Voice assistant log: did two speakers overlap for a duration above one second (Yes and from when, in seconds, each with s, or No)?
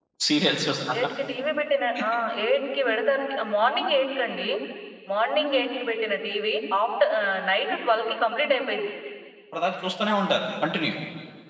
No